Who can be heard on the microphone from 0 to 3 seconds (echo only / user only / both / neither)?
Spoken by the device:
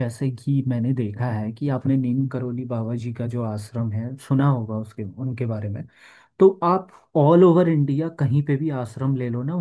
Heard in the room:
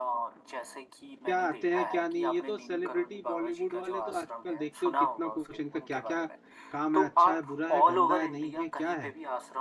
both